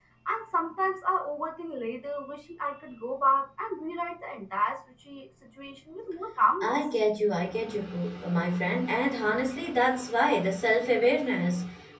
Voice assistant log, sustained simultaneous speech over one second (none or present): none